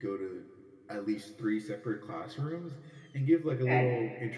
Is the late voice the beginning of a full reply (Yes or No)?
No